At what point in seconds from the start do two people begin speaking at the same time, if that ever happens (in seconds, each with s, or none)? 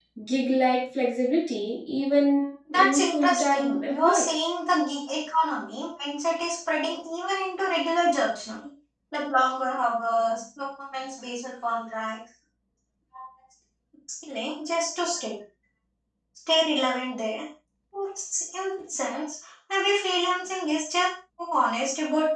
2.7 s